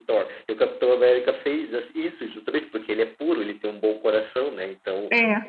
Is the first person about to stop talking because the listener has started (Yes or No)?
No